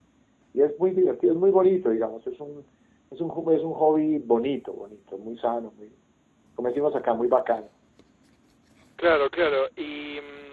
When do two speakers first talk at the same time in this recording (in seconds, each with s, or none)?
none